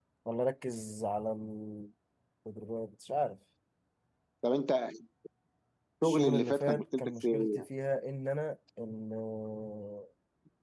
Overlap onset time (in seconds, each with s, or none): 6.0 s